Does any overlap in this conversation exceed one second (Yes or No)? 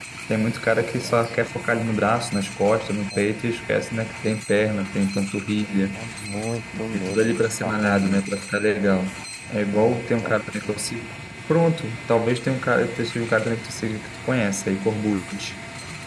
Yes